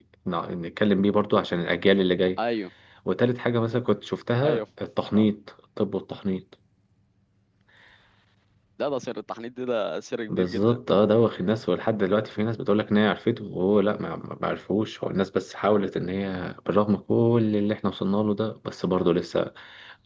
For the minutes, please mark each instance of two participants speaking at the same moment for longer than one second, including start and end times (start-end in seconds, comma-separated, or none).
none